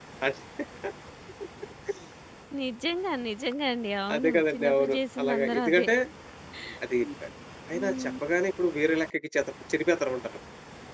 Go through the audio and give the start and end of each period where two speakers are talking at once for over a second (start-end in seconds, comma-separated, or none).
4.1-5.9